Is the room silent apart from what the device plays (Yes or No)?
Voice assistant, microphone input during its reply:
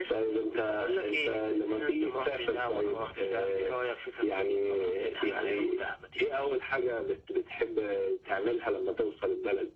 Yes